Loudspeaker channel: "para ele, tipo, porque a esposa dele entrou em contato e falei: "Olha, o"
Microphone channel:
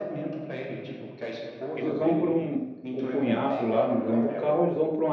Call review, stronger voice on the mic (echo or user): user